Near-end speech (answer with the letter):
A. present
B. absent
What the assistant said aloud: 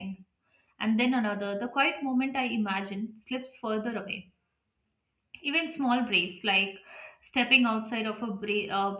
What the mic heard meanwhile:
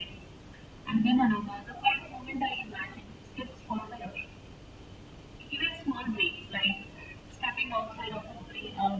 B